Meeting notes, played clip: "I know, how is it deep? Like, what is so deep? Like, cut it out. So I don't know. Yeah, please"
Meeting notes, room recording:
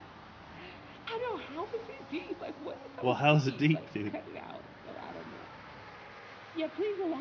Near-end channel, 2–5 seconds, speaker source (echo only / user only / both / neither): both